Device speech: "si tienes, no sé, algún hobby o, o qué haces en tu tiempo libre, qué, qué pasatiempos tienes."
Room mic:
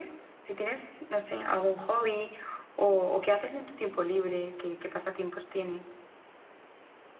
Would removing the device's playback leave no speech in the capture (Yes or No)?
Yes